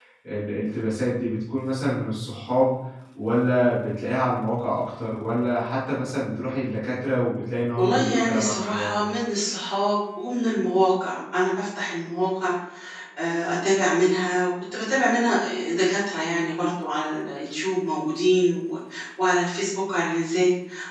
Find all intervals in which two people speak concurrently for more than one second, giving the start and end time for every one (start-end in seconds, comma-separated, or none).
7.8-9.0